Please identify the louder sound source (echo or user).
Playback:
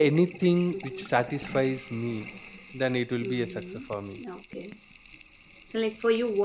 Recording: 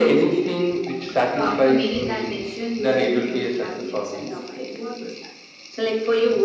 echo